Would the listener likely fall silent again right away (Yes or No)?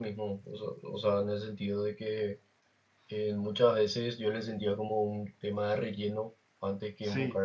Yes